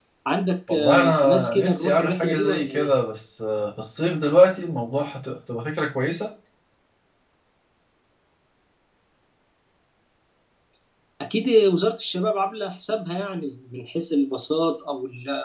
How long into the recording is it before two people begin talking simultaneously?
0.7 s

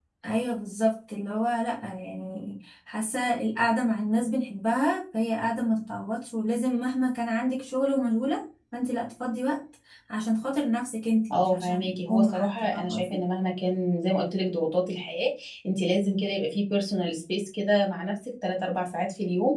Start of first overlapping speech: 11.3 s

